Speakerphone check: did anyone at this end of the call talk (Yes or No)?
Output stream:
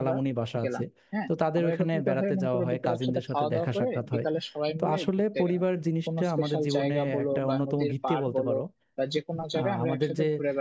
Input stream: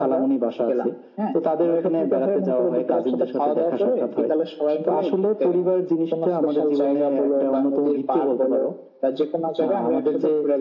No